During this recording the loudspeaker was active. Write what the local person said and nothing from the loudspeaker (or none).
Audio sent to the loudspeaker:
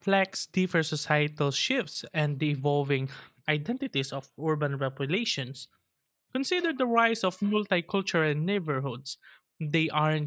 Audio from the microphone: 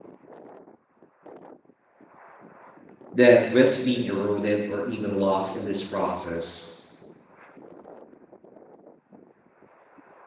that risk being eroded or even lost in this process?